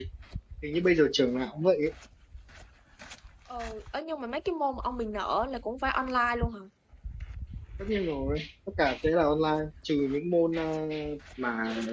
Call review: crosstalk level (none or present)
none